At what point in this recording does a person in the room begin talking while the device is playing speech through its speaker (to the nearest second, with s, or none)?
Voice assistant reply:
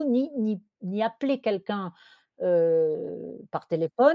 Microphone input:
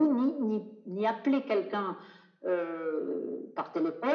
none